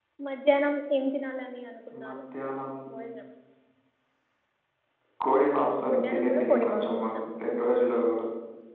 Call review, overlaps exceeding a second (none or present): present